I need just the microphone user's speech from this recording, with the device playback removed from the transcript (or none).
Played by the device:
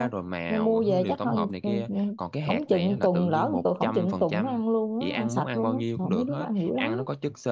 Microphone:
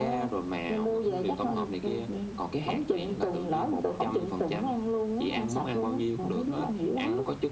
none